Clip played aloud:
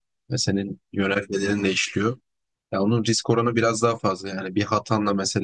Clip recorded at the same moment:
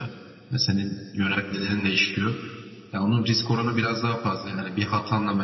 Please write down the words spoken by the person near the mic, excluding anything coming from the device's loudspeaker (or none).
none